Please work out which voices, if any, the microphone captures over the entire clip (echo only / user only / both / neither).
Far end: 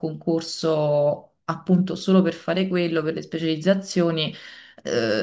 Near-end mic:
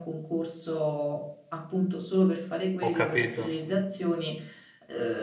both